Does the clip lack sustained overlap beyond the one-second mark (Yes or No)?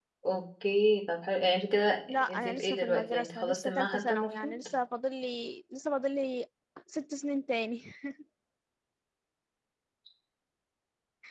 No